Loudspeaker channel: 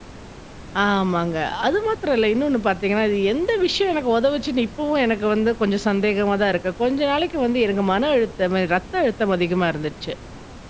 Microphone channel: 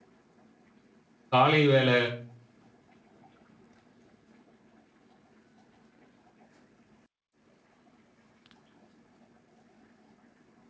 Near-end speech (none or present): present